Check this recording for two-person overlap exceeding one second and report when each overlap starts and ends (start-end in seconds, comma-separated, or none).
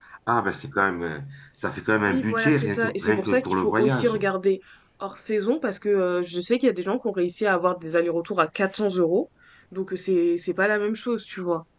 2.0-4.2